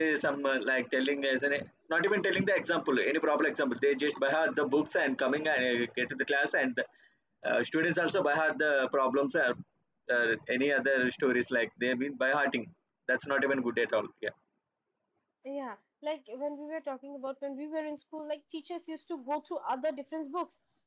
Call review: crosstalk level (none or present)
none